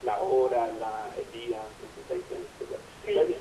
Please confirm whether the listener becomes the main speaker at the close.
No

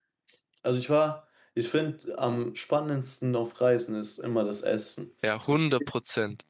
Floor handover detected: Yes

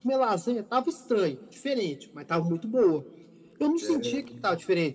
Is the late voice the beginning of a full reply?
No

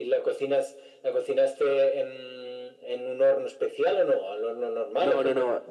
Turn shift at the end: Yes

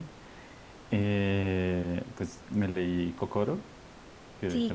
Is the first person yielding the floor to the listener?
Yes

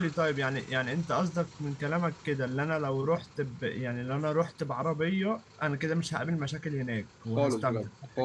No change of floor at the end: No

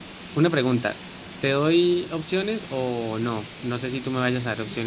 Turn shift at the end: Yes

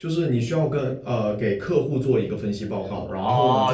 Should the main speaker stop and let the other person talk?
Yes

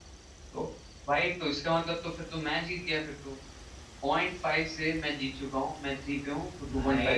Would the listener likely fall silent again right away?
No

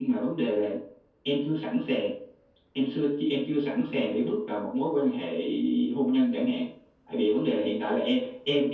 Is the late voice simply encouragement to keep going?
Yes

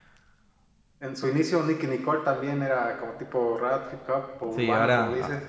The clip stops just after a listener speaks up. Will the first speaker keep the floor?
No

